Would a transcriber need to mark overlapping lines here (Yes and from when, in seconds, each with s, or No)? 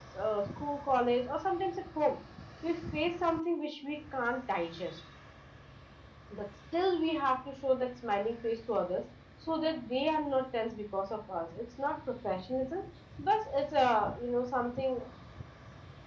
No